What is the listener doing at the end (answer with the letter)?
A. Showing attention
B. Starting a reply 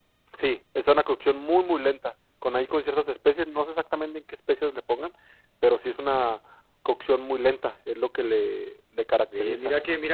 B